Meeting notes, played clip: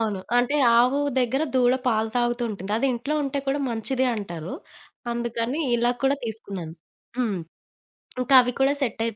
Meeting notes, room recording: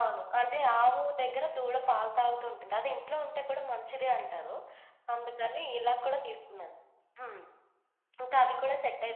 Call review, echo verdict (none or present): present